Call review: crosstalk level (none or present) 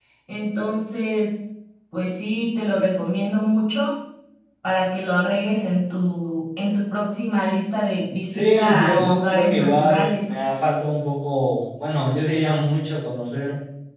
present